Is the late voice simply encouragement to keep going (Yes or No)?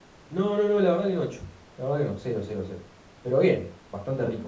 No